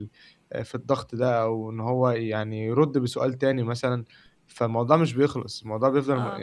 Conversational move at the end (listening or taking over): taking over